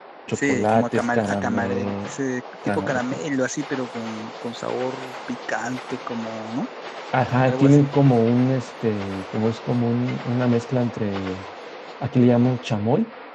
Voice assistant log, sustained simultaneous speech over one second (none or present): present